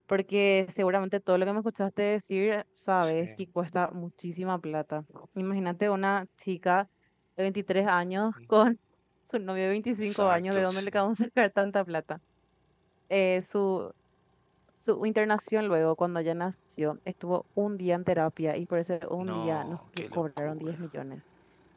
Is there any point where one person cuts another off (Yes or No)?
Yes